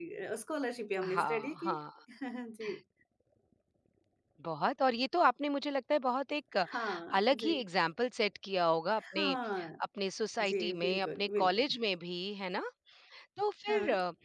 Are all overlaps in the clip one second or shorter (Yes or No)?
No